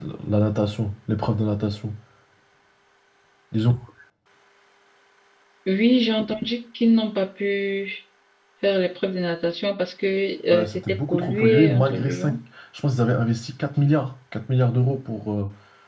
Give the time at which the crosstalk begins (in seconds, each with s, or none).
10.5 s